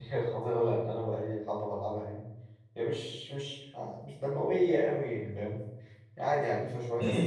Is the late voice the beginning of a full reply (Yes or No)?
Yes